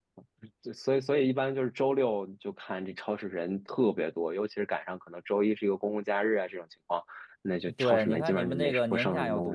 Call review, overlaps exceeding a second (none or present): present